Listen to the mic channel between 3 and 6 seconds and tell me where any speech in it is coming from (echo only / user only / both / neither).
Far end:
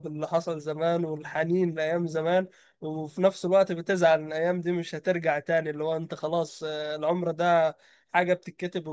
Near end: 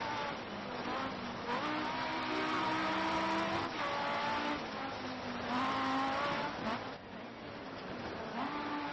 neither